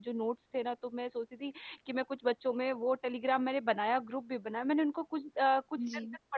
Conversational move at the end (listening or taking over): listening